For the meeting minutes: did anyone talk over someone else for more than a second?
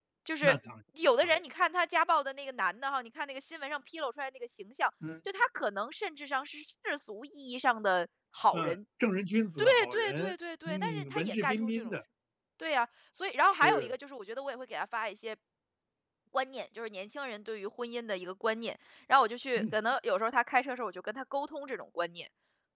Yes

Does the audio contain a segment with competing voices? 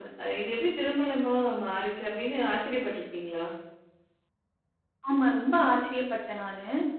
No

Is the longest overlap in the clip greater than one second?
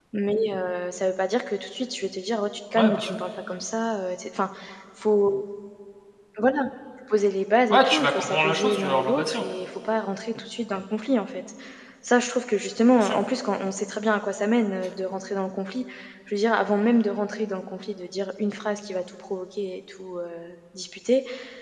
Yes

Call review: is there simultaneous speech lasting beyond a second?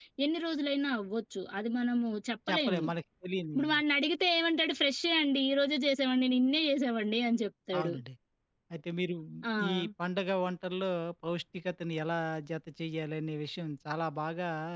No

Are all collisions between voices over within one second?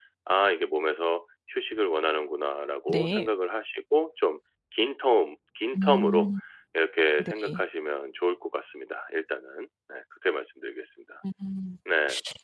Yes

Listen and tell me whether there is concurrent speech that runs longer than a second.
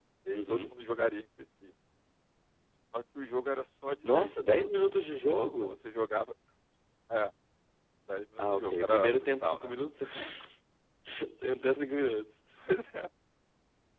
Yes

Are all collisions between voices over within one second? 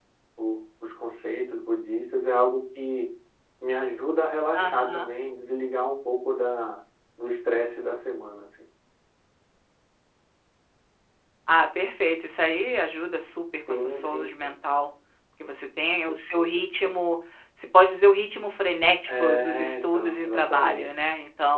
No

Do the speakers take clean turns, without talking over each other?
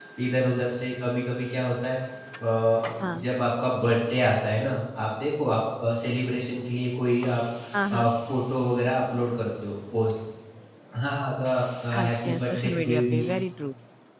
No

